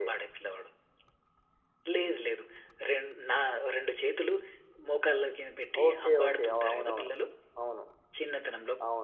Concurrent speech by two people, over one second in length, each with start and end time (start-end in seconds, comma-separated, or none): 5.9-7.1